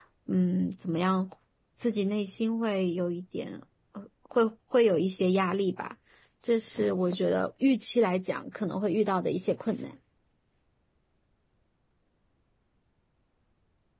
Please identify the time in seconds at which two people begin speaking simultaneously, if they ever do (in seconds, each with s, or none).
none